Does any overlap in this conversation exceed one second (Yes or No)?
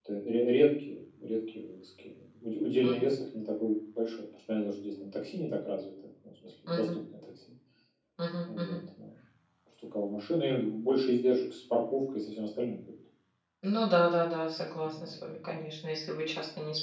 No